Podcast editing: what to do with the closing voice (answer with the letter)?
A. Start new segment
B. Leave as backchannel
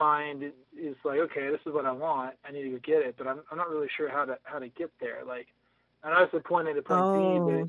B